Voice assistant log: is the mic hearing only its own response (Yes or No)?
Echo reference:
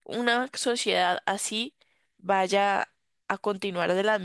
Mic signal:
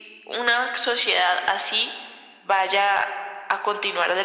Yes